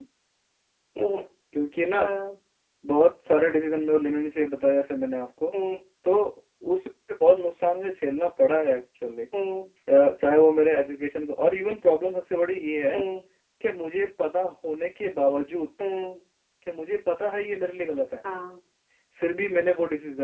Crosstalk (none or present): none